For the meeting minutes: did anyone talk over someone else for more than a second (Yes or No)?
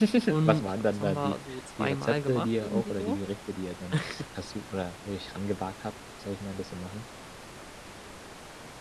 Yes